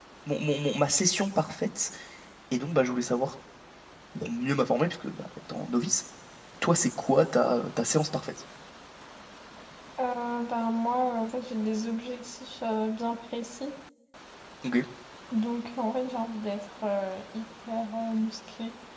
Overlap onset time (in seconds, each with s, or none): none